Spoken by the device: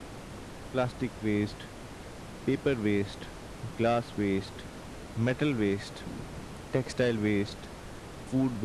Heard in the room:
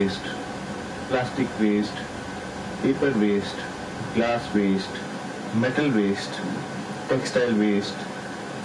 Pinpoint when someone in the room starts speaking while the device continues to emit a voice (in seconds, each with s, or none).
none